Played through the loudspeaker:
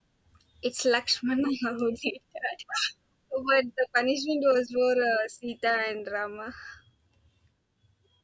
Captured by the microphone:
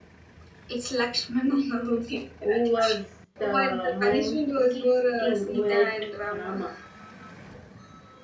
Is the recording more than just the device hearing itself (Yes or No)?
Yes